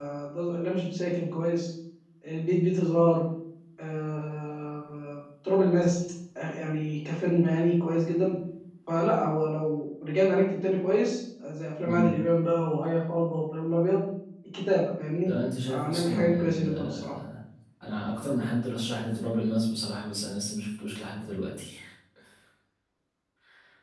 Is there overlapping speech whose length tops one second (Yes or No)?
Yes